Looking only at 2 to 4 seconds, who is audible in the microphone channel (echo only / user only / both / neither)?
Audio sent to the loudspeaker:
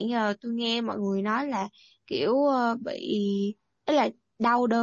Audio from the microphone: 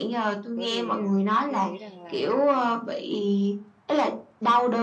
both